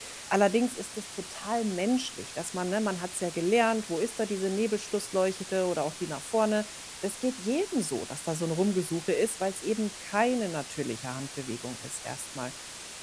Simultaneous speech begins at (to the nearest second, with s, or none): none